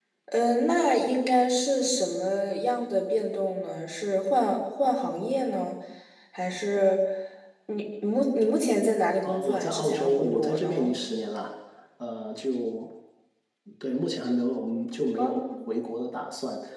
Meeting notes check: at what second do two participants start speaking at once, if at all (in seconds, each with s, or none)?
9.2 s